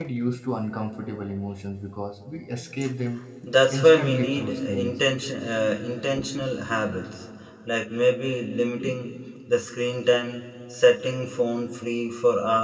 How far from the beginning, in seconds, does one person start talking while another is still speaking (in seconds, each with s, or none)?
3.7 s